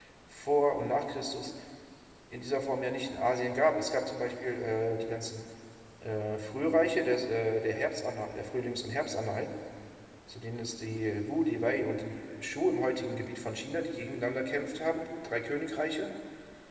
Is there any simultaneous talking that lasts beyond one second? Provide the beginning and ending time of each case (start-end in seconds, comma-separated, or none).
none